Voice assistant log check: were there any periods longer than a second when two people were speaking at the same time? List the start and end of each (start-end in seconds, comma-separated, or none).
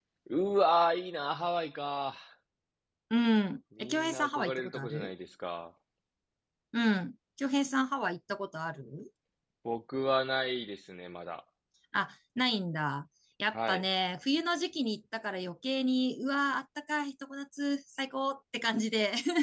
3.8-5.1